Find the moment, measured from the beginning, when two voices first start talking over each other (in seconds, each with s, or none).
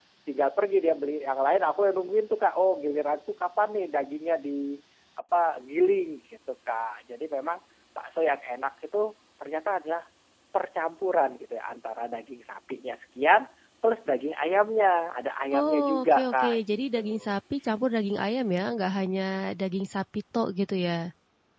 15.5 s